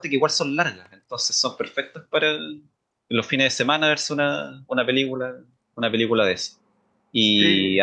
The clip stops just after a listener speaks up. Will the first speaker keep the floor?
Yes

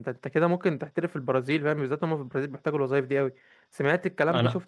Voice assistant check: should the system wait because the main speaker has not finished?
No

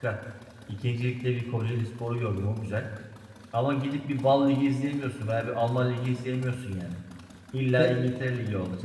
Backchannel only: Yes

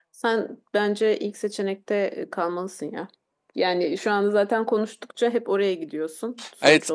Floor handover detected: Yes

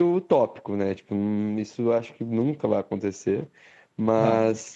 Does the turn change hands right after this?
No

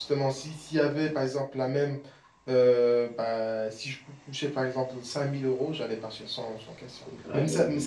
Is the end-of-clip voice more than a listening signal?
No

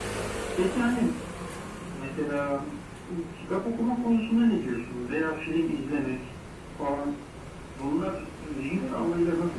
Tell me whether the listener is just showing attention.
Yes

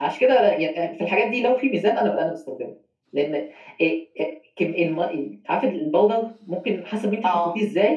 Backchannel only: Yes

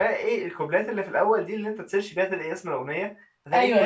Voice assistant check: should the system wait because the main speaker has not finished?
Yes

